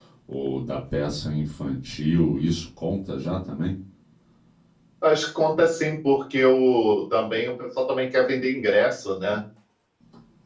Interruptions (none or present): none